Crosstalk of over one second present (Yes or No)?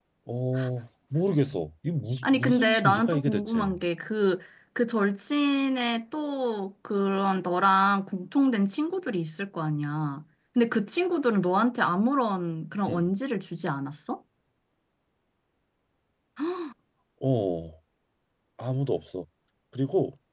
Yes